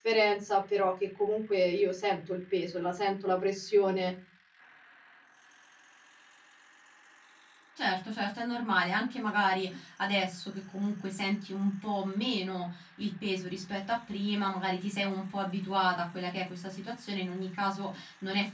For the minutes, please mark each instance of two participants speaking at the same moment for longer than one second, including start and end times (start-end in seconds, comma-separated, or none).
none